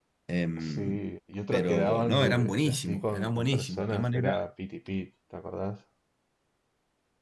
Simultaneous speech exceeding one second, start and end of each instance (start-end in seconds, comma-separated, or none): 1.5-4.3